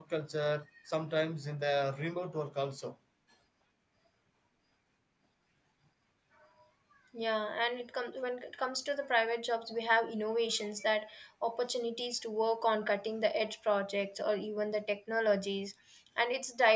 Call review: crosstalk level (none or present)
none